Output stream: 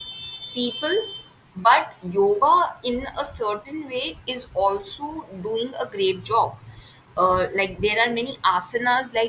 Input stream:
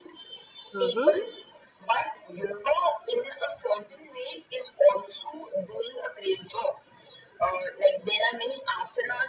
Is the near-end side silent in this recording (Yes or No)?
No